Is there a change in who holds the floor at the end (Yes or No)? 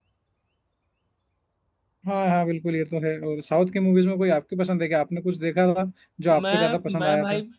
Yes